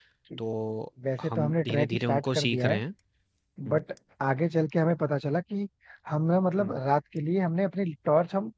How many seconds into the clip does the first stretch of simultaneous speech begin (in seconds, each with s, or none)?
1.3 s